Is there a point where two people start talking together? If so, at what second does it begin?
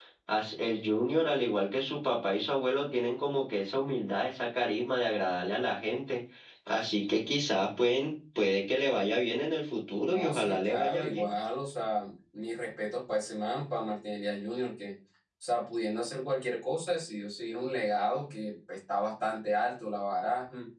10.1 s

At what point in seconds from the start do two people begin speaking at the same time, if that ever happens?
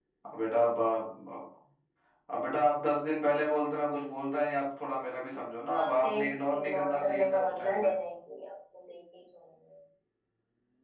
5.7 s

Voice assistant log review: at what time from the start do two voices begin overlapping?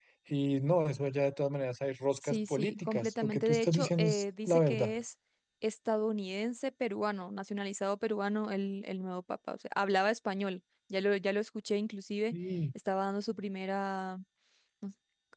2.2 s

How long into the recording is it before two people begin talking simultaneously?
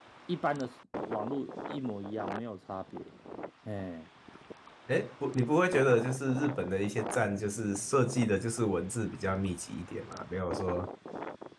none

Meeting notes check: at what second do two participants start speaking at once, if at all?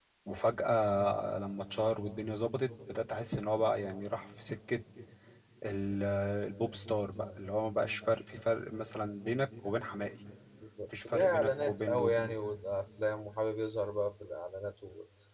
10.9 s

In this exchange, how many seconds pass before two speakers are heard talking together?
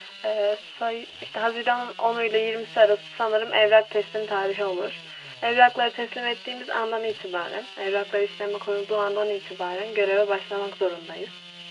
none

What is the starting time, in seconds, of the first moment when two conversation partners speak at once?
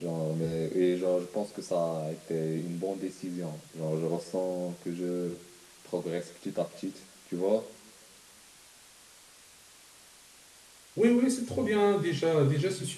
none

